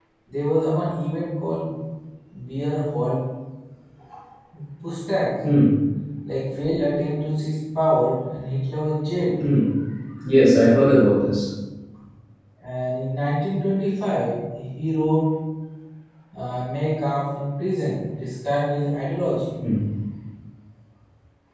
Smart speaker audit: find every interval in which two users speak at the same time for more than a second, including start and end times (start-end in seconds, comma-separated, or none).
none